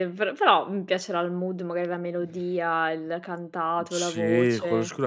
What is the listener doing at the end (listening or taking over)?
taking over